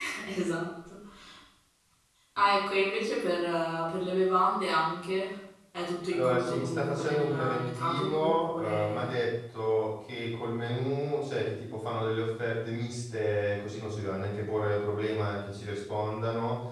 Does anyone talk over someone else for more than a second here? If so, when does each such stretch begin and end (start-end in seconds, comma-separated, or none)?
6.1-9.1